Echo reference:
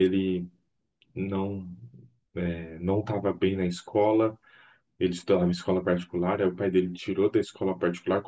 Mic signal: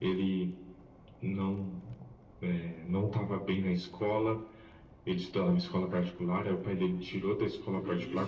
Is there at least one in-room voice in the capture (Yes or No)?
Yes